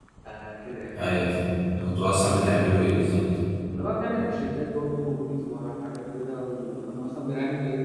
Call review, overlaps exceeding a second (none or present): none